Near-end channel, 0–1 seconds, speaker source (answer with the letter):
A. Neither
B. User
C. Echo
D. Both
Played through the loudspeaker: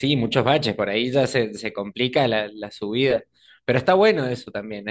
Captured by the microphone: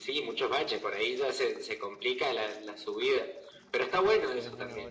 C